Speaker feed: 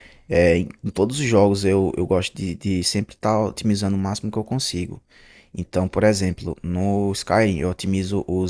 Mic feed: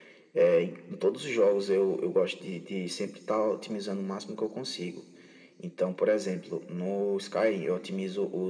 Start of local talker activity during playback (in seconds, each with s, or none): none